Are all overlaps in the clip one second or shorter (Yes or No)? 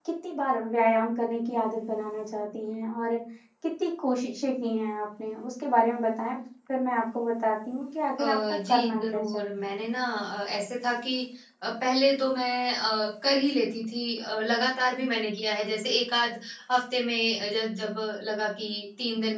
No